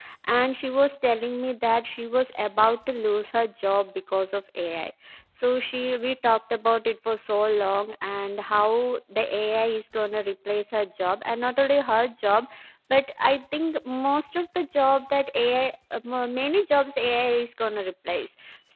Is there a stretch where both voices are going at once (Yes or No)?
No